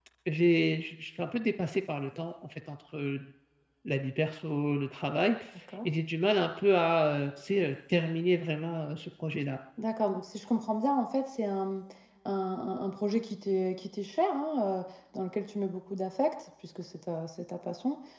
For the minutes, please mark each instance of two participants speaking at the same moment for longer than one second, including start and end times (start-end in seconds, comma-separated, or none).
none